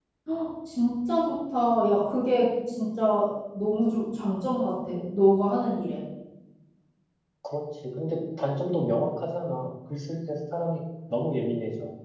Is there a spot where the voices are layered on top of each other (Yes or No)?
No